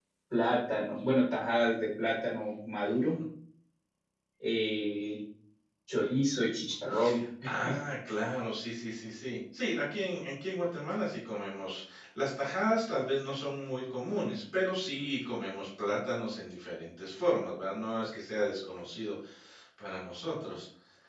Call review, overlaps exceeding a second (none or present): none